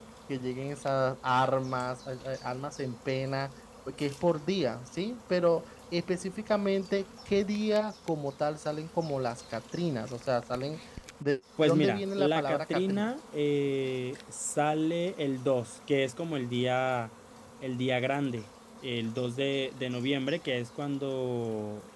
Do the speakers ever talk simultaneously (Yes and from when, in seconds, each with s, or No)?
Yes, from 11.6 s